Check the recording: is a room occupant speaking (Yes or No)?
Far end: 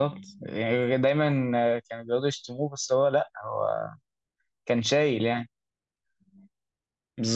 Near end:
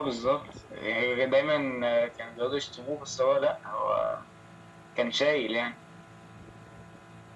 No